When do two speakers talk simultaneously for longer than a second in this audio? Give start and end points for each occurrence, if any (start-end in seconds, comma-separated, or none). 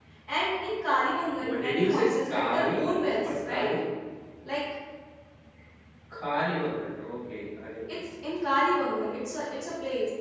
1.4-3.7